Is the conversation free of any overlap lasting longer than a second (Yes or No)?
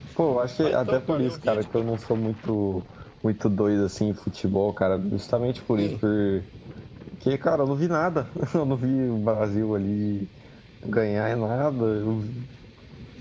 No